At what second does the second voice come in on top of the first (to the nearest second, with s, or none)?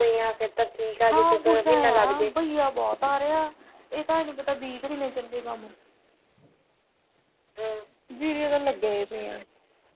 1 s